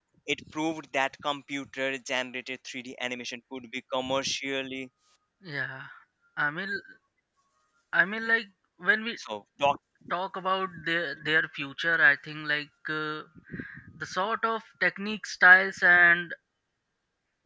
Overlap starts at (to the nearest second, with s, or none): none